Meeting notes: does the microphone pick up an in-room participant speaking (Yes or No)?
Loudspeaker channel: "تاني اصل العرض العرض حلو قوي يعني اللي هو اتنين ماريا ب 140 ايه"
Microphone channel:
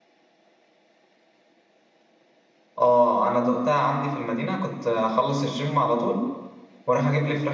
Yes